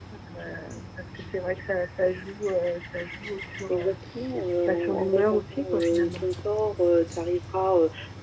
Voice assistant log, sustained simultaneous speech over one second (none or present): present